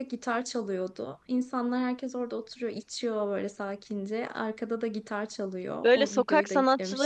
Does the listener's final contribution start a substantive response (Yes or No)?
Yes